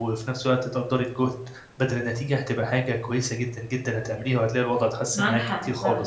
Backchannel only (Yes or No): No